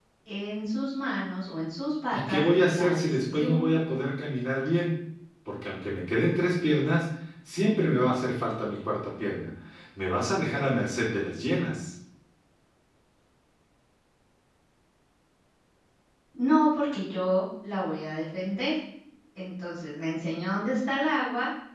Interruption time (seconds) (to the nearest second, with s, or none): 2 s